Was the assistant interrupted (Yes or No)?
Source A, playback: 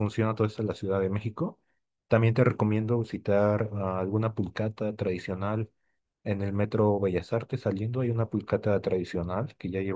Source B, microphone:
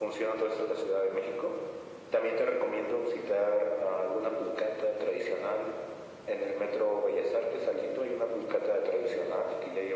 No